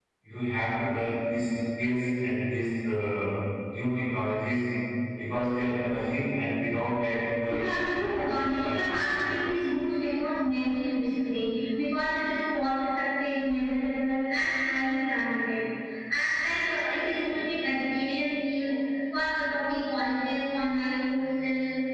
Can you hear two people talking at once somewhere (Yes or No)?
Yes